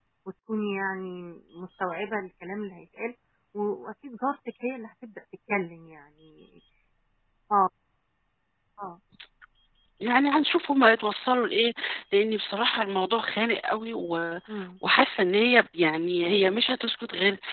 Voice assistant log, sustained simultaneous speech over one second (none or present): none